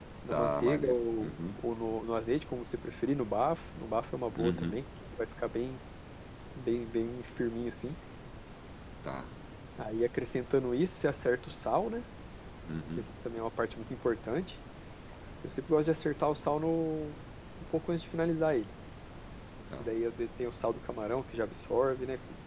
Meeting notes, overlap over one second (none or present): present